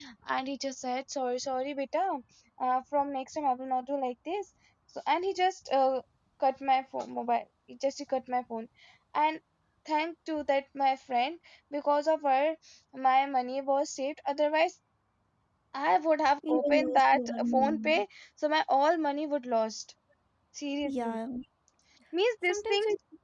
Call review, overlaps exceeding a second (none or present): present